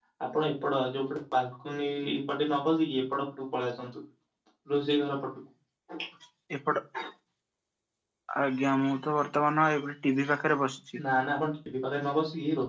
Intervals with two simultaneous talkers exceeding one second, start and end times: none

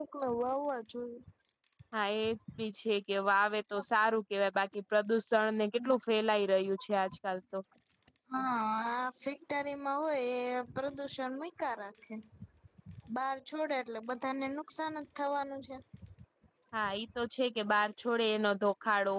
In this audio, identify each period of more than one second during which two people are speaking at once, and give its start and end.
none

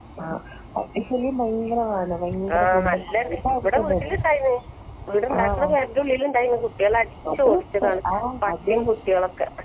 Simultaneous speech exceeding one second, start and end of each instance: 2.5-4.0

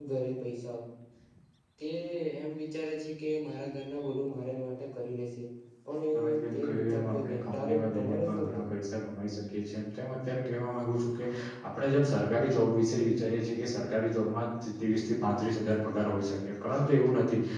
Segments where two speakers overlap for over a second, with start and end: 6.3-8.8

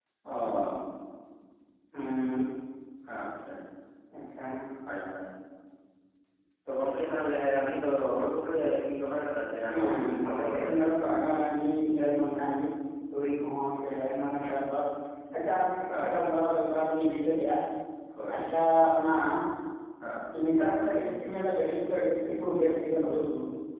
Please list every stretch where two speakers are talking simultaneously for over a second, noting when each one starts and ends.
9.7-11.1

